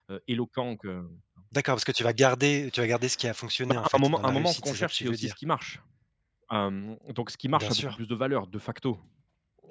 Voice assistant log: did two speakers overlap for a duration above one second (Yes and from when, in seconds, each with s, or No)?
Yes, from 3.7 s